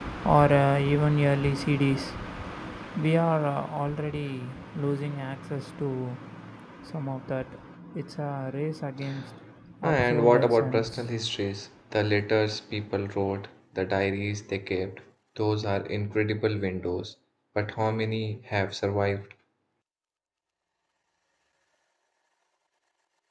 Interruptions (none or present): present